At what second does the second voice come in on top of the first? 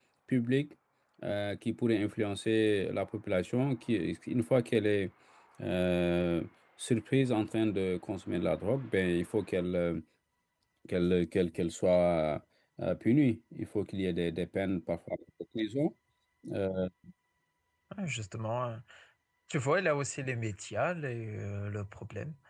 none

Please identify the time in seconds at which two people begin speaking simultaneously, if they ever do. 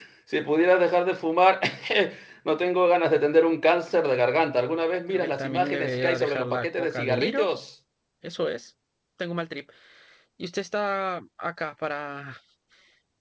5 s

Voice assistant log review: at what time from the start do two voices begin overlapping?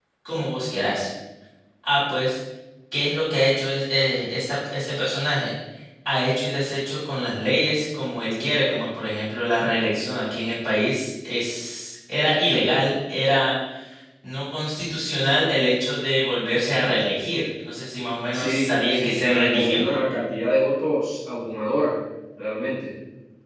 18 s

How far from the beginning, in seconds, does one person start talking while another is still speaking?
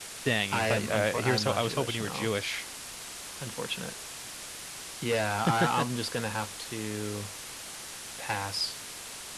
1 s

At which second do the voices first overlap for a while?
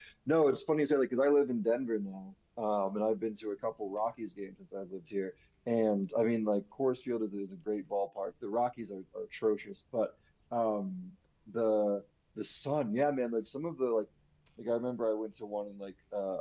none

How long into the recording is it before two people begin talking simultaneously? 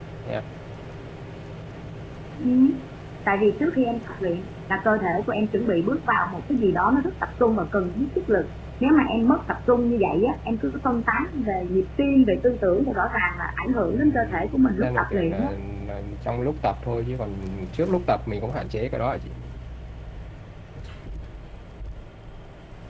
14 s

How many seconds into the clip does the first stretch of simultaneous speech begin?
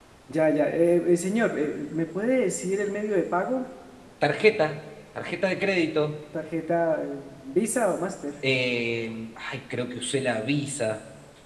none

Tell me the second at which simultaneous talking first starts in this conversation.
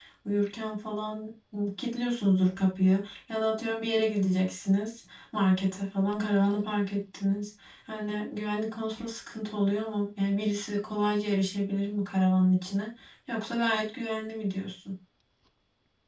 none

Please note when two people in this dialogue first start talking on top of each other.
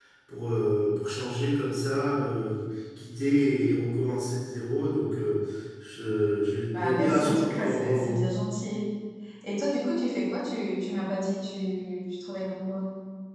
7 s

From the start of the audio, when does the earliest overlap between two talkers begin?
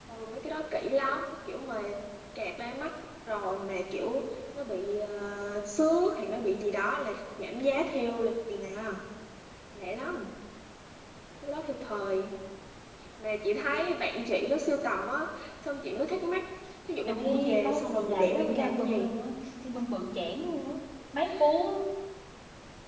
17 s

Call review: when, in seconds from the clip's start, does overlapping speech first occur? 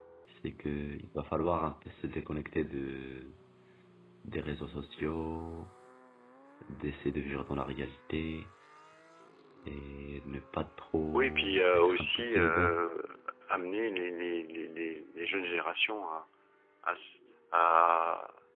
11 s

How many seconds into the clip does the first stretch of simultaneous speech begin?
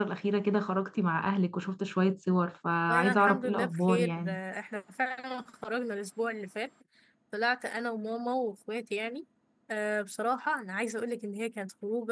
3 s

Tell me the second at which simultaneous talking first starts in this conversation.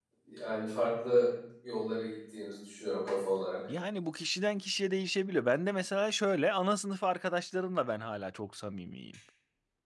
none

